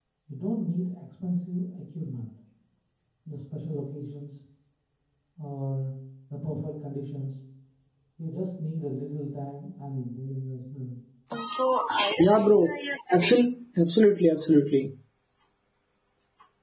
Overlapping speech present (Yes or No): No